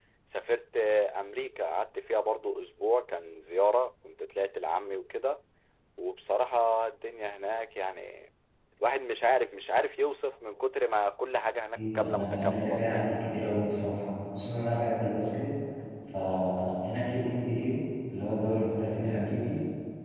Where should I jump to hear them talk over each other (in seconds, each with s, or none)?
11.8 s